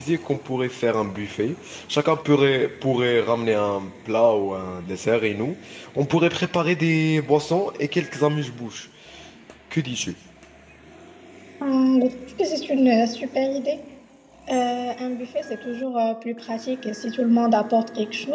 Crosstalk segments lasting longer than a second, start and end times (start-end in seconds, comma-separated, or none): none